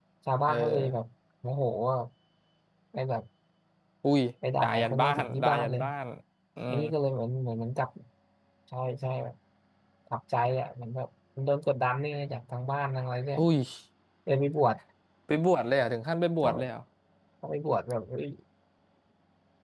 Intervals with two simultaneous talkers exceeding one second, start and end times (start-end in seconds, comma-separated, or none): 4.6-5.8